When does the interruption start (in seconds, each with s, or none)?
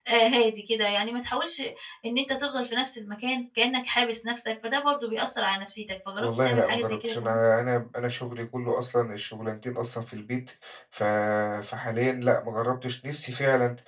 6.2 s